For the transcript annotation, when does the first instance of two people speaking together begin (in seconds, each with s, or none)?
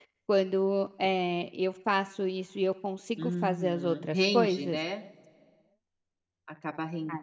3.2 s